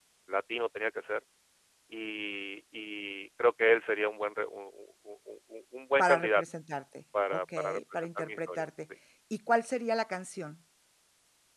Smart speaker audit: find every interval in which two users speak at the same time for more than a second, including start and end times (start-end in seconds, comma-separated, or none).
7.3-8.6